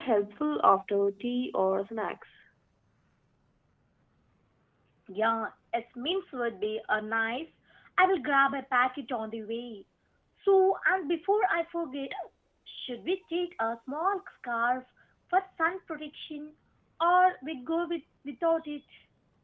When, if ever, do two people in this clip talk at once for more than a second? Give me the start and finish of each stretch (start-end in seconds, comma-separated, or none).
none